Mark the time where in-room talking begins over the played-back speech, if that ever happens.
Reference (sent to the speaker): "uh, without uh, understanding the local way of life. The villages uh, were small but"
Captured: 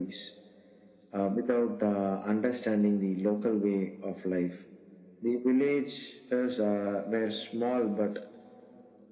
none

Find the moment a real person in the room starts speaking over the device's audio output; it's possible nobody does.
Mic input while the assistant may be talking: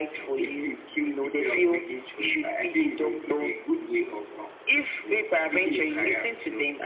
none

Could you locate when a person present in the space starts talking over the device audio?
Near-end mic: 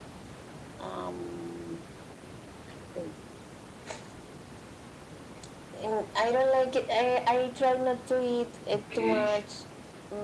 9 s

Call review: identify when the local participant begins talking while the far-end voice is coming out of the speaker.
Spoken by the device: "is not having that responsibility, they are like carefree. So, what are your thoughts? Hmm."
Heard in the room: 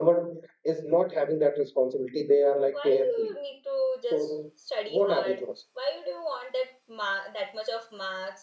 3 s

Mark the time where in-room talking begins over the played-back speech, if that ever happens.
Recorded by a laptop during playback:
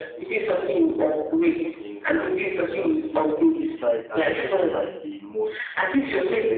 2 s

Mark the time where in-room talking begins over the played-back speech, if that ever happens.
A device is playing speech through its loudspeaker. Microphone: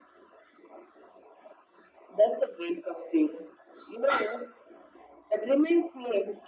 none

